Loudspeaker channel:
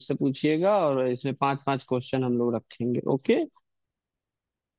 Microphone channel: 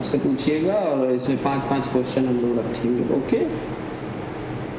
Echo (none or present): present